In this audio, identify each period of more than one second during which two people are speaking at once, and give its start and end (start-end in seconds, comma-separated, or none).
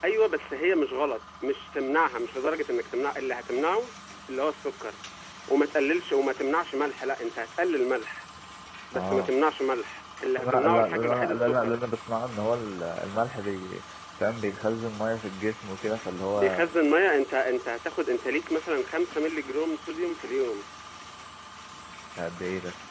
10.3-11.8